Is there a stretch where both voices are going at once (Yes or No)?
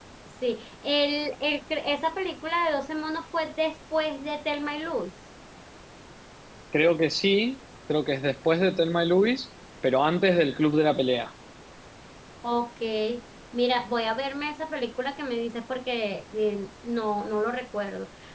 No